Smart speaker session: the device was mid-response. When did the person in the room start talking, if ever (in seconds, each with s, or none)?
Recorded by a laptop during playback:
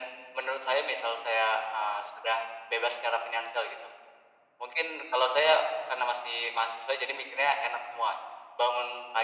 none